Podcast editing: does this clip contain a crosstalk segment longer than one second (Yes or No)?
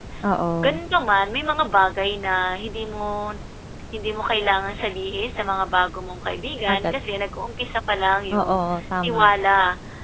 No